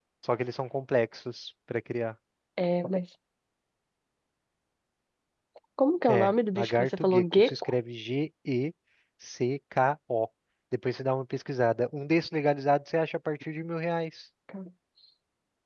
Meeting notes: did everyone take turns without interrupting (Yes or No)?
No